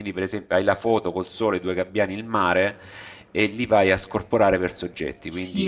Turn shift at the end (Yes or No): Yes